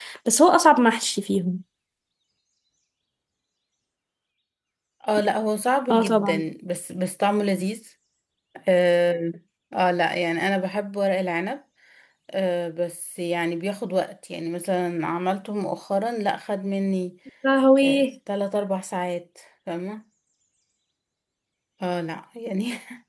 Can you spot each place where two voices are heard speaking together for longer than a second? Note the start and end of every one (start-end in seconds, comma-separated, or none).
none